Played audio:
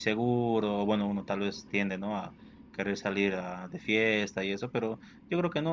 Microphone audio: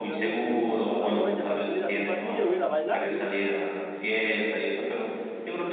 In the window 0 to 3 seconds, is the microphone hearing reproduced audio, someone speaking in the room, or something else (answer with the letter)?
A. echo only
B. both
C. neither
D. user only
B